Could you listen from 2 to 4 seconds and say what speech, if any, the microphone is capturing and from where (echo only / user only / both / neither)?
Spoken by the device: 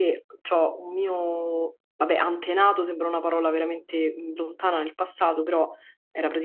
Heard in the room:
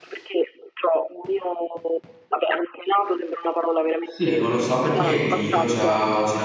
echo only